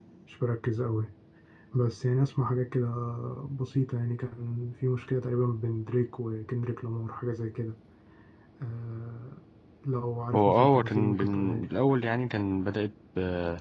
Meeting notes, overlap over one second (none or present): present